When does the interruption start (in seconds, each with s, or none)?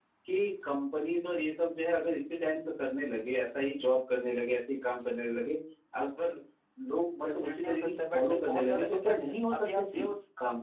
7.2 s